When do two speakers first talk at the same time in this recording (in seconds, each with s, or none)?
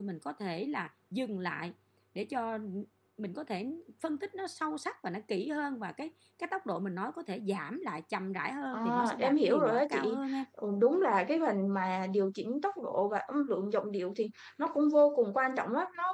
8.7 s